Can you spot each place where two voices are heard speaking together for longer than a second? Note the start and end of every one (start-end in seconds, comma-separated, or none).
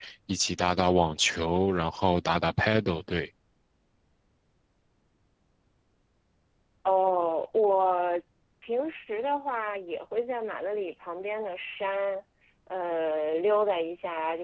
none